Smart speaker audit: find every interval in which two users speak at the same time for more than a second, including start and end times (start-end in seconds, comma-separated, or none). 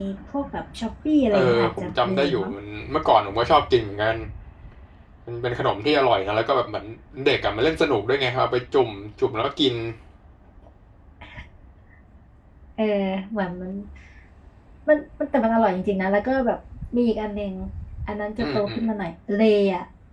1.3-2.5